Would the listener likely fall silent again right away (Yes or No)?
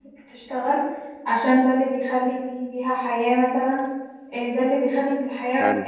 Yes